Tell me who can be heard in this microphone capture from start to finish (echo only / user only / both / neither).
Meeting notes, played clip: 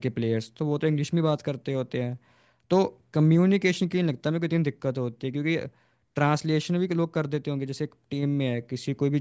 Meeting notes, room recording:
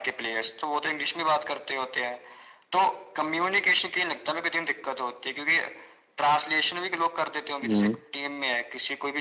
both